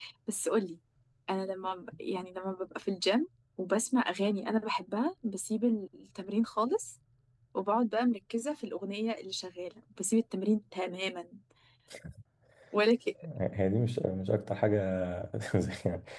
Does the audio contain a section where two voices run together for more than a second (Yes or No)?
No